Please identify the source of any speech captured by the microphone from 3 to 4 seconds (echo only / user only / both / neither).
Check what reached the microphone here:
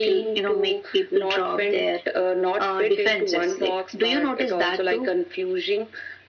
echo only